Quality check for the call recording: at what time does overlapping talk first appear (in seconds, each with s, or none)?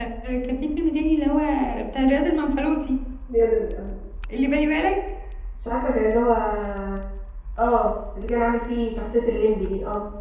none